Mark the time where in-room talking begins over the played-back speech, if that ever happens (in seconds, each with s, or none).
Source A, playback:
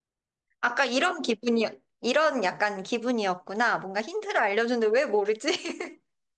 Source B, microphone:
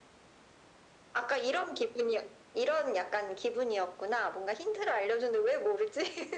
none